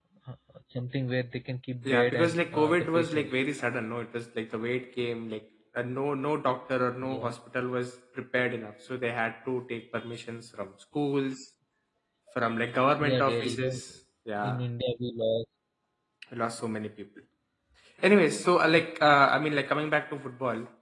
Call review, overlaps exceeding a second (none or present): present